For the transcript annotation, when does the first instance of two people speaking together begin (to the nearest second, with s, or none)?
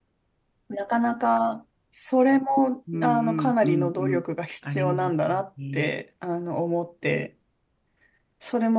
3 s